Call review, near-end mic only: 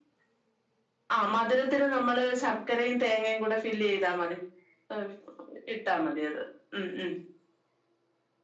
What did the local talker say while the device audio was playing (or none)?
none